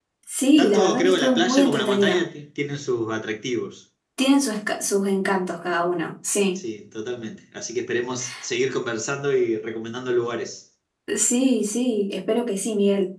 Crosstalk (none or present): present